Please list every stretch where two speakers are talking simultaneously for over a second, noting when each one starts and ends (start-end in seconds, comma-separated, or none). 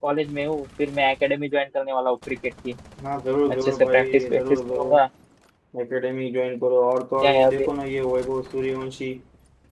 3.5-5.0